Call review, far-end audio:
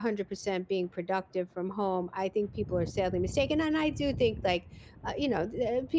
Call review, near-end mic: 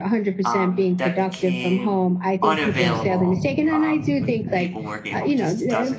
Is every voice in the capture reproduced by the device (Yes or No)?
No